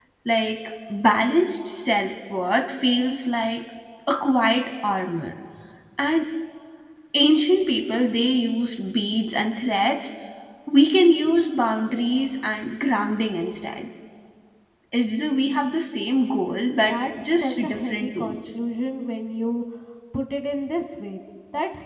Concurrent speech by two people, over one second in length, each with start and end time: 16.5-18.4

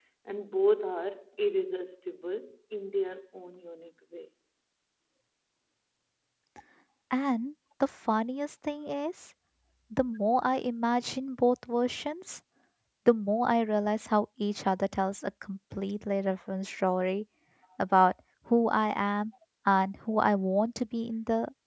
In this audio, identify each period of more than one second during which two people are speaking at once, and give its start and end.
none

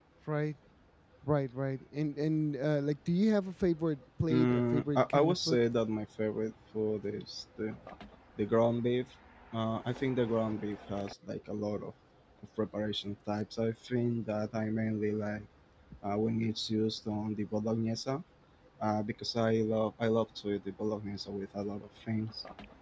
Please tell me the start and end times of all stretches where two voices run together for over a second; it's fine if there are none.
4.3-5.6

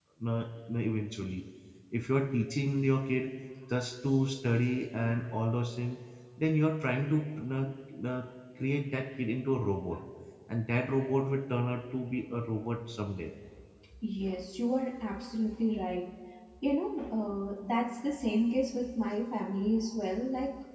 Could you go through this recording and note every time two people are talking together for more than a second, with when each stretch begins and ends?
none

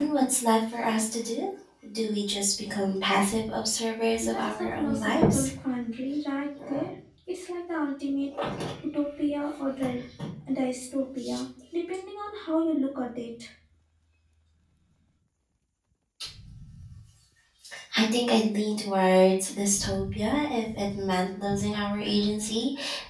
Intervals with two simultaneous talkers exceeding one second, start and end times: 4.2-5.5

